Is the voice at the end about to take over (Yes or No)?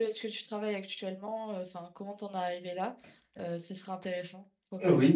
Yes